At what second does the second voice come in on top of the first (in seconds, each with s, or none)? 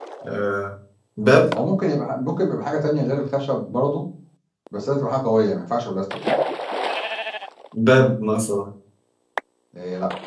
none